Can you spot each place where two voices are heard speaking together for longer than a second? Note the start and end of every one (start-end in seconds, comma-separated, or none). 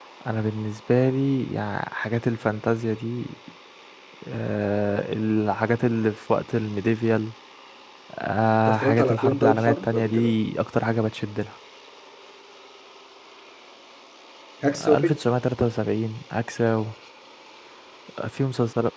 8.7-10.3